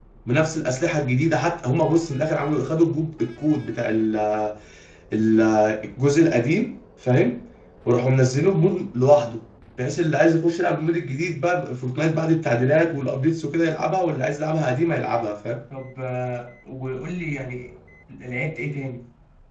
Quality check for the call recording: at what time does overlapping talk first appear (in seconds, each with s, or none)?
none